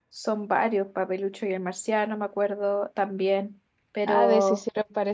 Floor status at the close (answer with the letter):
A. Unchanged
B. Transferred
B